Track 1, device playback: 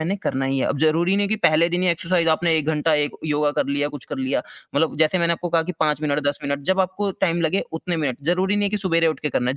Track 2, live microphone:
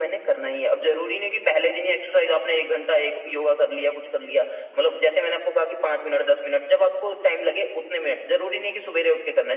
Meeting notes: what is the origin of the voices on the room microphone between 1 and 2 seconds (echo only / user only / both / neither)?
echo only